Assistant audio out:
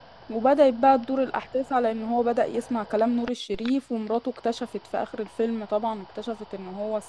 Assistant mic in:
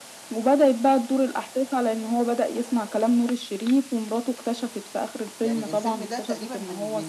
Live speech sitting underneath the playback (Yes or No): Yes